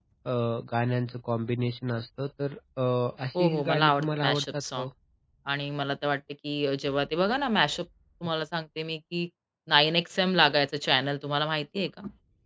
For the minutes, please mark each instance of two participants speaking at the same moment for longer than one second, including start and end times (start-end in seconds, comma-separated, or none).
3.4-4.9